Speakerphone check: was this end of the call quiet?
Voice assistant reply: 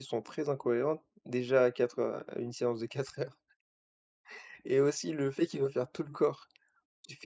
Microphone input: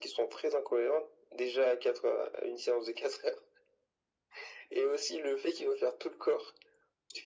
Yes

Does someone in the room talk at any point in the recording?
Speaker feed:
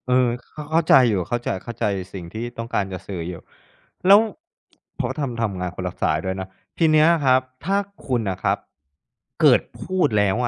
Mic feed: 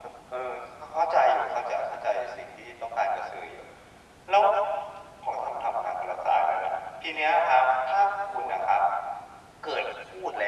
No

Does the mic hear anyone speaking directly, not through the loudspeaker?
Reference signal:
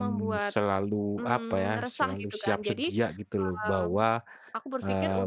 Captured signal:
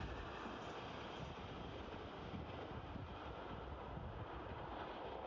No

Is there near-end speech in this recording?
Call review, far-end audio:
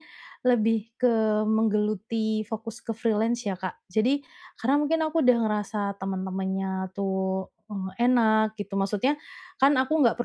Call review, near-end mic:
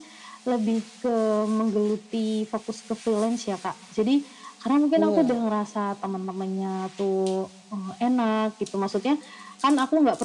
Yes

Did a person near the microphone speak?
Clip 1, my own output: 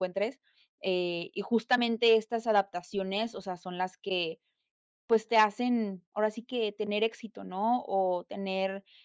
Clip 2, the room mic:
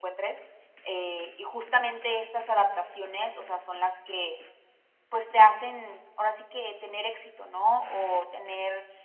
No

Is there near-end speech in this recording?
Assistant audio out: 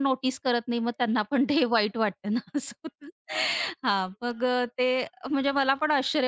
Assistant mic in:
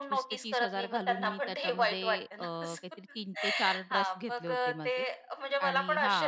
Yes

